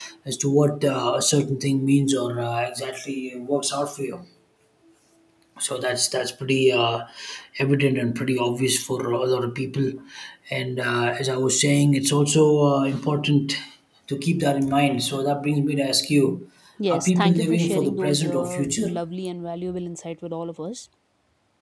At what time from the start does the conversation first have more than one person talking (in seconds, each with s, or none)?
16.9 s